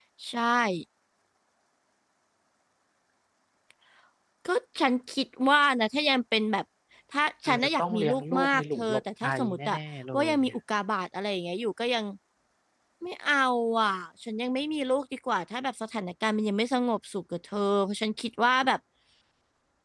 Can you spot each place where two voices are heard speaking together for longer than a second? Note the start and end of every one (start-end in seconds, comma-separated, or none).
7.4-9.8